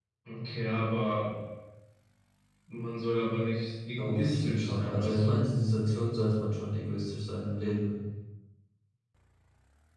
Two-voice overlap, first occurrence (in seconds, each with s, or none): 4.0 s